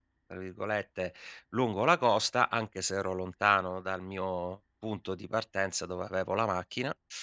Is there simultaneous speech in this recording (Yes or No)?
No